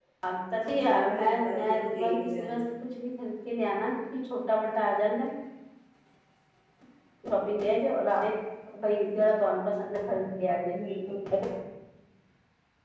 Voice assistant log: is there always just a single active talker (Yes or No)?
No